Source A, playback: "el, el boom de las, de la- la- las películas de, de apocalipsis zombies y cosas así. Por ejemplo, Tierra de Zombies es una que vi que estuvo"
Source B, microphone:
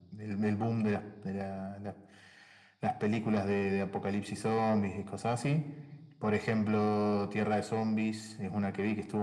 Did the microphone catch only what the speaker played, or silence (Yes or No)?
Yes